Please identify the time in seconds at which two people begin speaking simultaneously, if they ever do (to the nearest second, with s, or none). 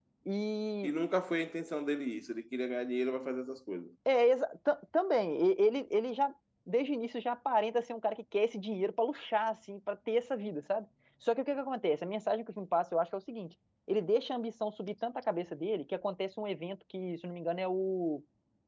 none